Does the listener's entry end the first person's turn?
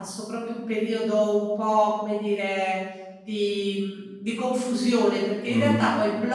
No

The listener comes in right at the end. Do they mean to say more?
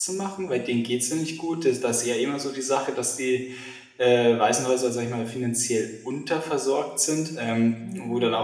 No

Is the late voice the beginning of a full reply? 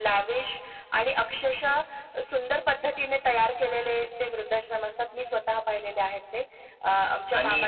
Yes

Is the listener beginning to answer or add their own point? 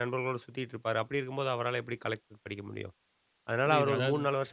No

